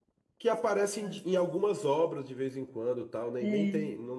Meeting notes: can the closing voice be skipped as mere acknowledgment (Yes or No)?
Yes